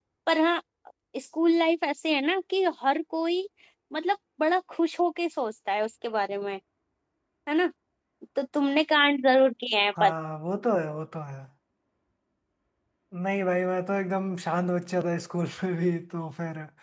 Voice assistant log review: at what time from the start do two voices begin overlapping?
none

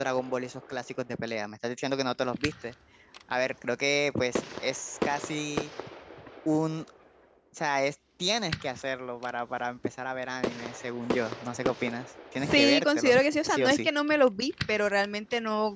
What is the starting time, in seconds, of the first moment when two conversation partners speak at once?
12.4 s

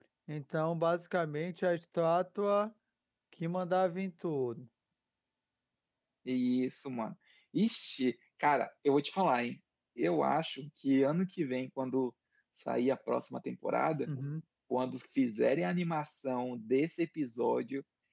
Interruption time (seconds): none

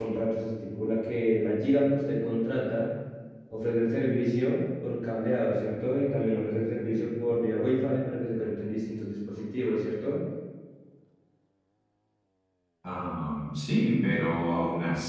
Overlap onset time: none

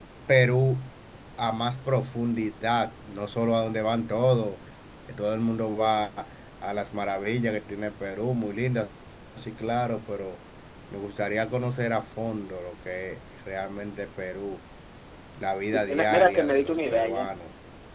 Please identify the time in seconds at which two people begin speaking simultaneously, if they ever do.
15.7 s

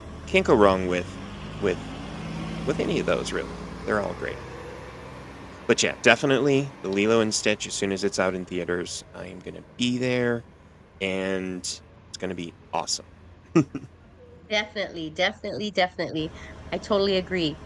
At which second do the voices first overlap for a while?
none

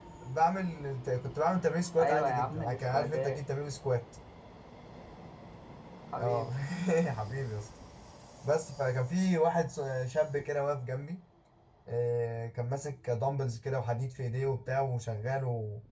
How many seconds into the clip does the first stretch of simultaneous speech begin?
2.0 s

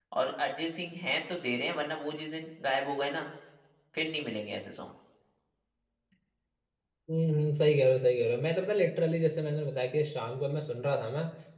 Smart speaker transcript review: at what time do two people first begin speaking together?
none

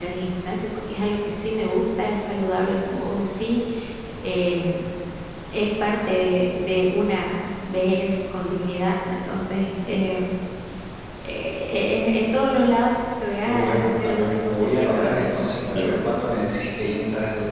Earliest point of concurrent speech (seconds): 13.5 s

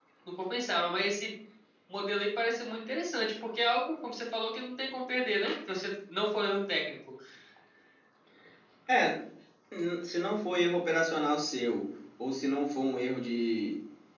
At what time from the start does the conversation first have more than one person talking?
none

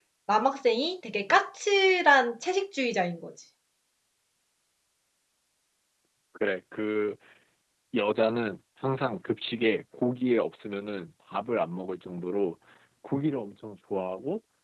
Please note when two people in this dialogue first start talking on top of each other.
none

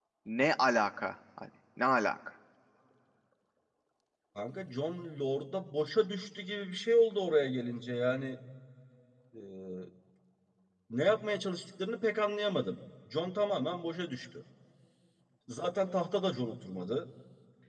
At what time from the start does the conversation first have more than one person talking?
none

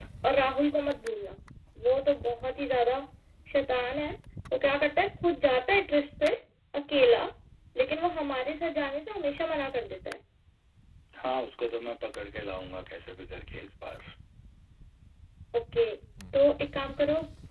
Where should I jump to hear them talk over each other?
none

